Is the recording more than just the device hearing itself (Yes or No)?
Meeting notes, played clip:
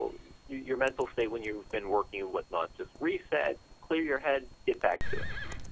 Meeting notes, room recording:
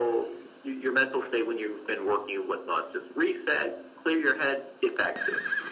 No